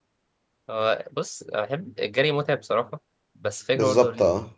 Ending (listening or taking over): listening